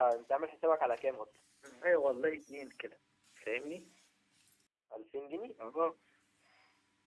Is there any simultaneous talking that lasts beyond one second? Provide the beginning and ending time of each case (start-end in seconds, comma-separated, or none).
none